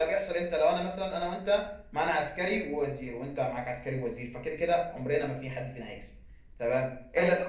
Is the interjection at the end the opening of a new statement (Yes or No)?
No